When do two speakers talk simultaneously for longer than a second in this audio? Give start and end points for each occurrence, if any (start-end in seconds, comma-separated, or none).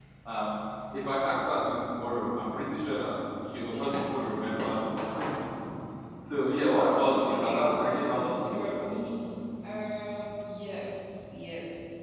7.1-8.9